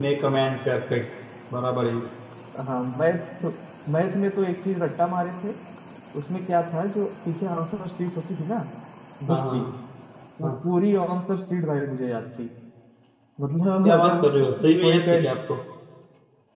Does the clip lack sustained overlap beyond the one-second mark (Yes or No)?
No